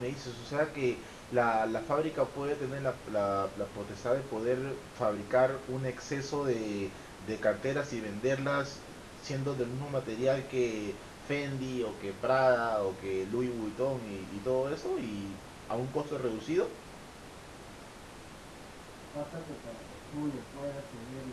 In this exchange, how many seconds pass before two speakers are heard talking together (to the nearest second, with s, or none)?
none